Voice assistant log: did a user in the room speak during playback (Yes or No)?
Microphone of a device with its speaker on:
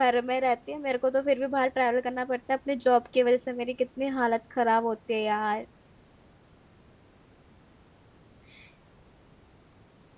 Yes